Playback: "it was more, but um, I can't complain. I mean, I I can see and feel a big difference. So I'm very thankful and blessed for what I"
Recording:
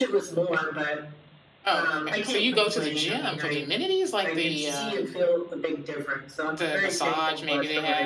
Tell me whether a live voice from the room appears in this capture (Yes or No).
Yes